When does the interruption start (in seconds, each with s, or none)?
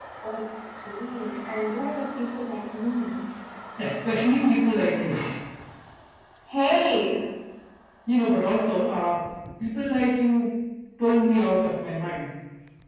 none